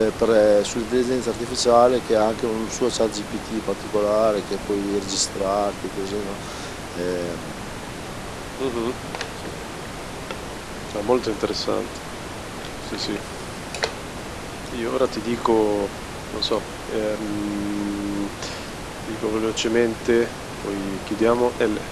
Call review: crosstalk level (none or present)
none